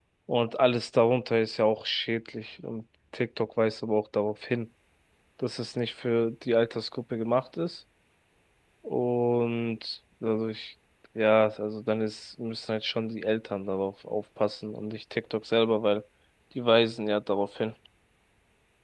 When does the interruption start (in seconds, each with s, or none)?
none